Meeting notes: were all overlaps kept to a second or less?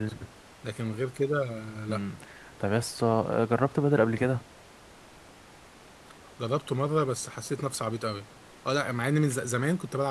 Yes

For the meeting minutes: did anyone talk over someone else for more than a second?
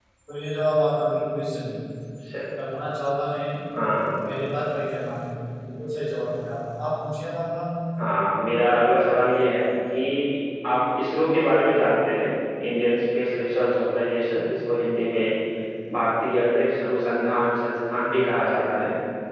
No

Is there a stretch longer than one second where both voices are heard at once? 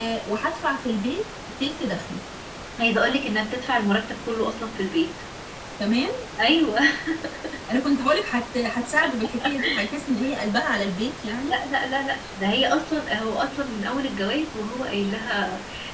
No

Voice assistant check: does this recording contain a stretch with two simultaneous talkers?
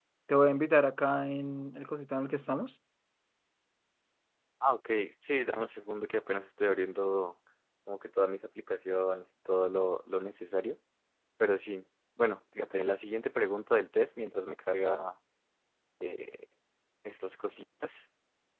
No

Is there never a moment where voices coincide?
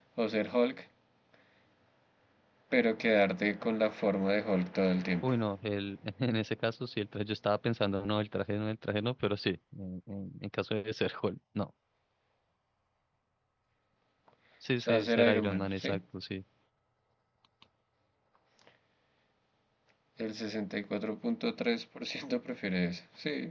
No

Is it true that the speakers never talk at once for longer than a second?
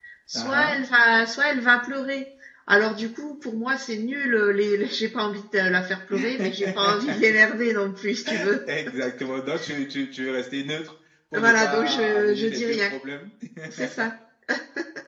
No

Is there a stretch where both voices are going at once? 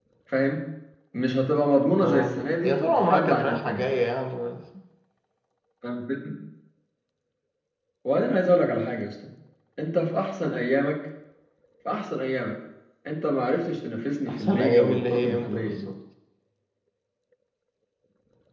Yes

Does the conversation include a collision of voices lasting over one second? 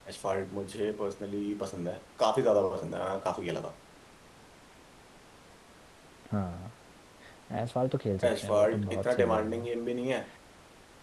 Yes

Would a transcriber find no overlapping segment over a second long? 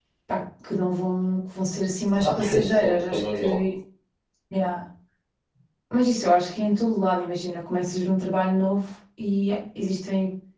No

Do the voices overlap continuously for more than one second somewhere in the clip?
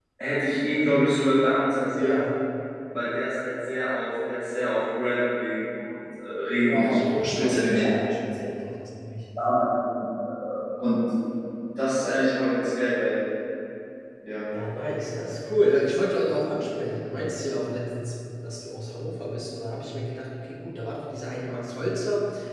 Yes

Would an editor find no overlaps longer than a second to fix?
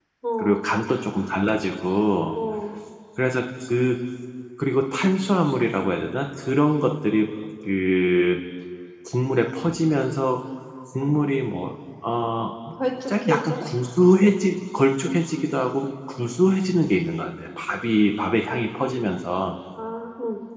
Yes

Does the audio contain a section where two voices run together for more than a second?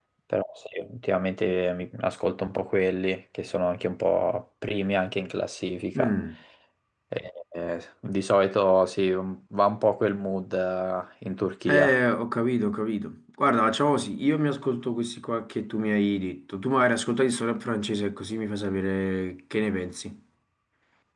No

